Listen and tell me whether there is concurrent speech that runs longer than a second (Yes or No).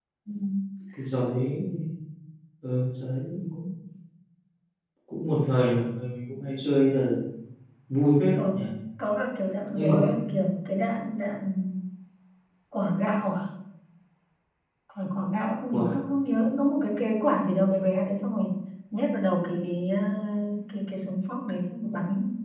No